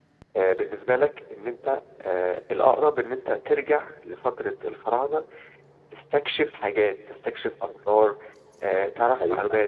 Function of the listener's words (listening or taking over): taking over